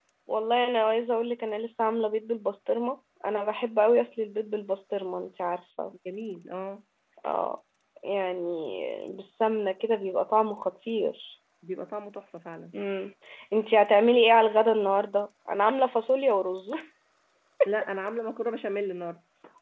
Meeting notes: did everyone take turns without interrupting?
Yes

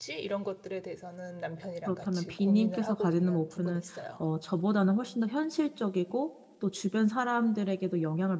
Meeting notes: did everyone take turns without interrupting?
No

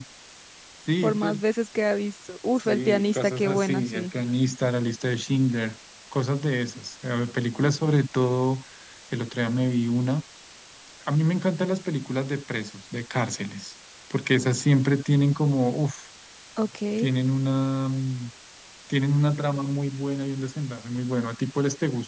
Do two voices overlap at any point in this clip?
Yes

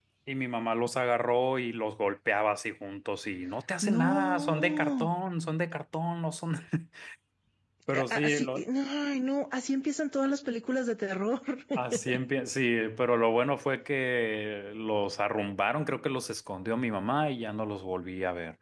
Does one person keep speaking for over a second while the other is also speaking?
Yes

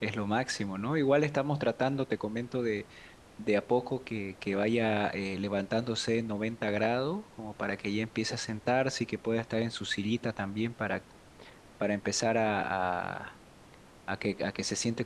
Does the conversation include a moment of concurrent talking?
No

